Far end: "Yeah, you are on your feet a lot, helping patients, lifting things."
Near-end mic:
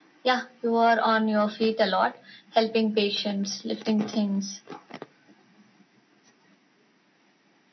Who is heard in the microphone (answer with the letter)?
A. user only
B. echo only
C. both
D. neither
B